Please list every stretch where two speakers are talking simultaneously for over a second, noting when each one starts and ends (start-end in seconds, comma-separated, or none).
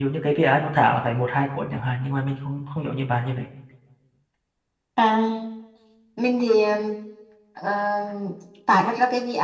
none